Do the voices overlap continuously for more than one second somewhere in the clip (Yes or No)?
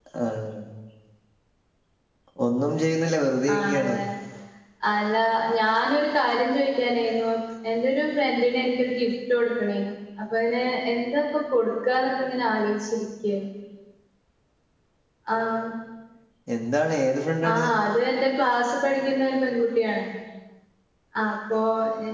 No